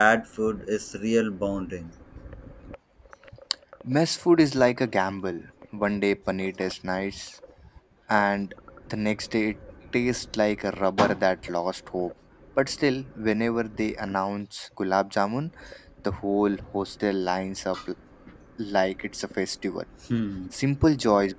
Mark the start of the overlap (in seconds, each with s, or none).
none